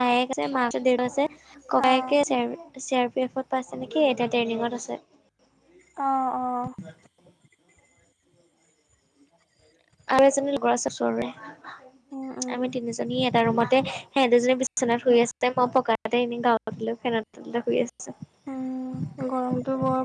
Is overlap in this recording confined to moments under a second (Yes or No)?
Yes